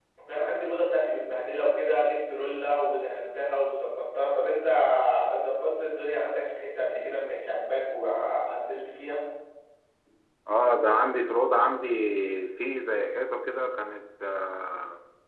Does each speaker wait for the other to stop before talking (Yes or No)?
Yes